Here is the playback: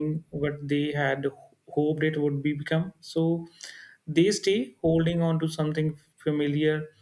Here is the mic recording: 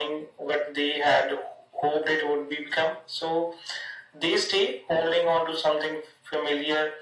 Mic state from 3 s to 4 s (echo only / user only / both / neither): echo only